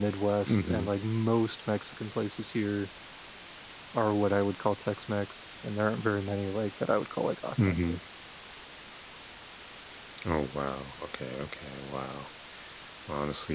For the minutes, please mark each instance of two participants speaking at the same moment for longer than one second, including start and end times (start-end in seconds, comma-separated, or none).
none